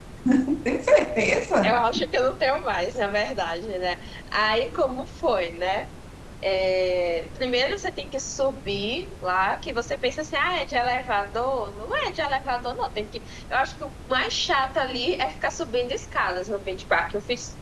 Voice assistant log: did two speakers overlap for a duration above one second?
No

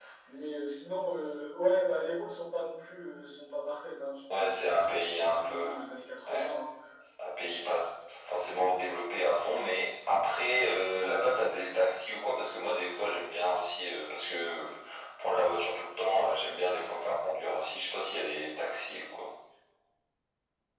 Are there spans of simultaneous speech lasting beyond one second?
Yes, from 4.3 s

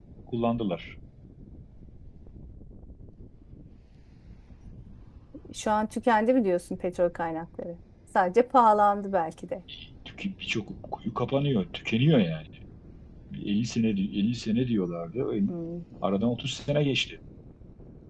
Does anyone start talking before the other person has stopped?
No

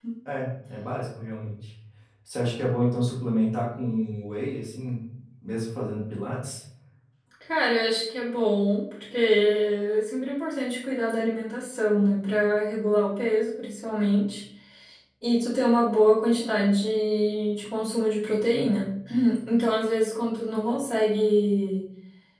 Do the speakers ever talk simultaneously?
No

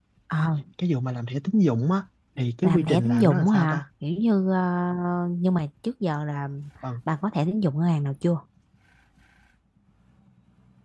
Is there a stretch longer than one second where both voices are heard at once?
Yes, from 2.6 s

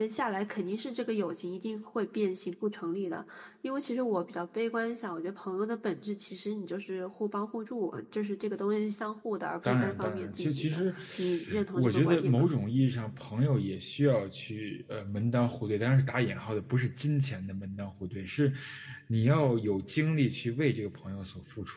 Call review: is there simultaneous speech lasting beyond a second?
Yes, from 9.6 s

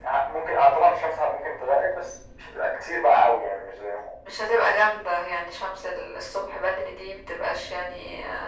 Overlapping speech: No

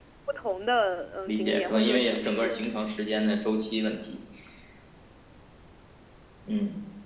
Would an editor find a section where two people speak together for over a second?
Yes, from 1.3 s

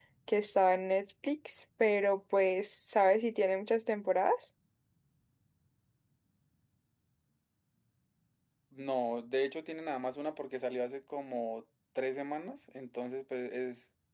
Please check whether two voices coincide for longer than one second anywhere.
No

